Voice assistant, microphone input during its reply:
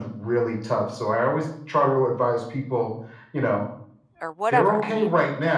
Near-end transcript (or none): or whatever, I mean,